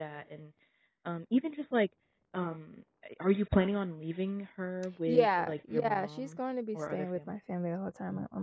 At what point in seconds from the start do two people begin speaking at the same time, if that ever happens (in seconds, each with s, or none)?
5.1 s